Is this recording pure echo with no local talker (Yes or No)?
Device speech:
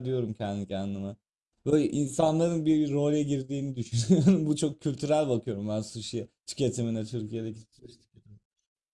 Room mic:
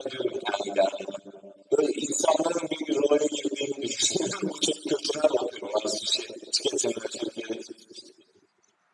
Yes